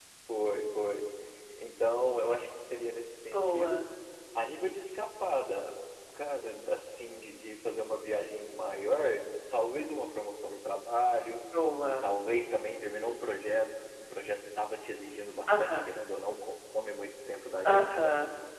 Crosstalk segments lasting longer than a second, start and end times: none

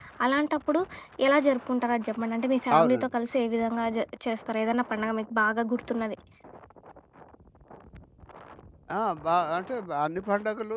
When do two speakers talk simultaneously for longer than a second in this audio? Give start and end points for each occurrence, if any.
none

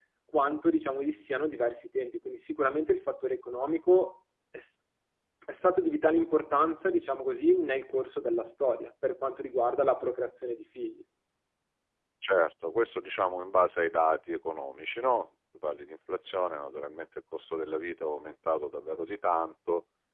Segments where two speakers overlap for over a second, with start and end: none

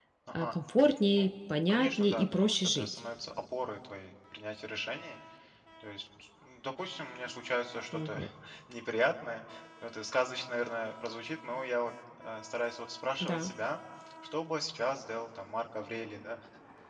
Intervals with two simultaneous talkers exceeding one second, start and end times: 1.7-2.9

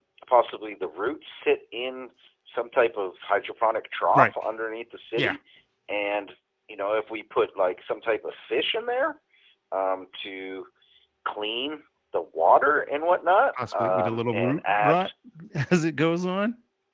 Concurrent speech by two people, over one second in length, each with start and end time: 13.8-15.1

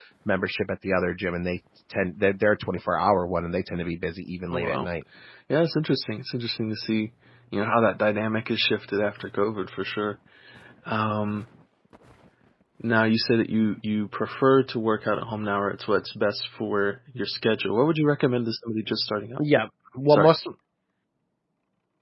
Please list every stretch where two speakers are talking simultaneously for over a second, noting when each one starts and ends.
none

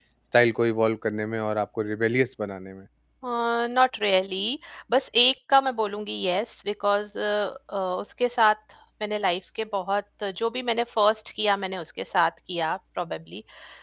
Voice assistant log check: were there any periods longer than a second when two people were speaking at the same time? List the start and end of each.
none

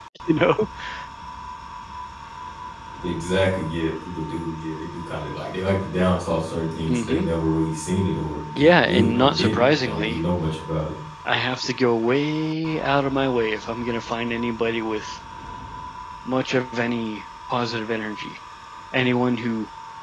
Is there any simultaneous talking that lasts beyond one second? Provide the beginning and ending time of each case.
8.6-10.2

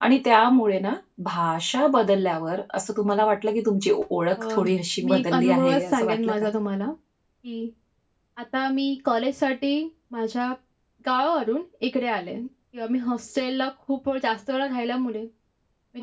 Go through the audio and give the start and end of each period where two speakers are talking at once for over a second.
5.0-6.5

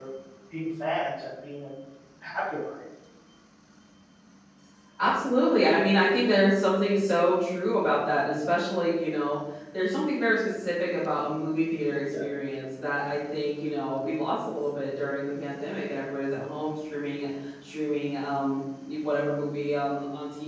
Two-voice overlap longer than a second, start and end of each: none

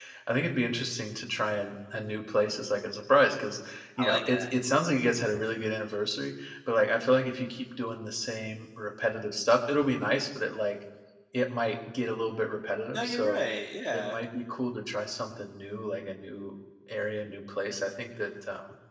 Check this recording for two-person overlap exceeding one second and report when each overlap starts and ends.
none

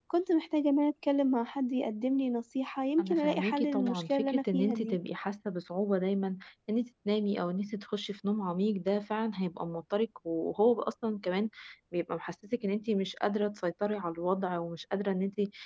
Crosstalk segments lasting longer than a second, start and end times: 3.0-5.0

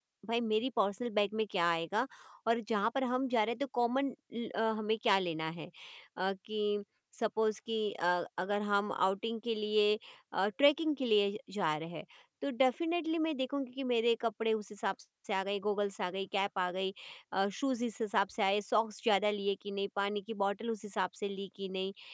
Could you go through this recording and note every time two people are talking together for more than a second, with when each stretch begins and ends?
none

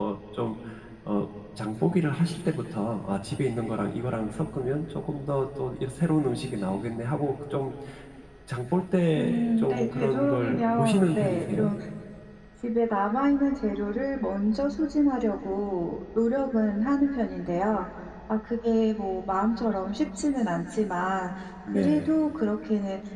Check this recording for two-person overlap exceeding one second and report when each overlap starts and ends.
9.2-11.7

